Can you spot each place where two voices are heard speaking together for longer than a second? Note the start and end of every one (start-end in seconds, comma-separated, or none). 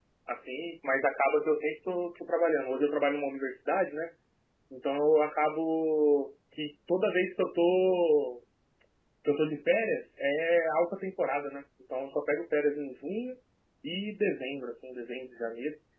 none